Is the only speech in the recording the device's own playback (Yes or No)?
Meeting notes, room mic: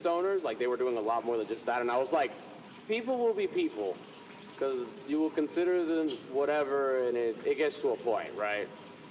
Yes